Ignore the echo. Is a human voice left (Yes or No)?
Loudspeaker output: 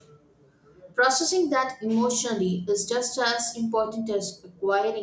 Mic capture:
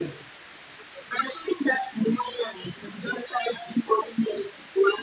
No